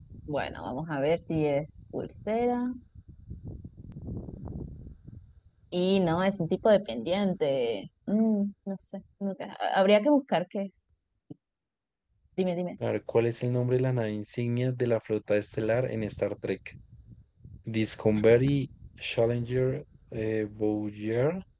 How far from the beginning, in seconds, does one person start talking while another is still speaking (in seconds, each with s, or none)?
none